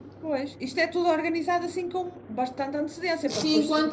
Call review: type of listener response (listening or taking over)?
taking over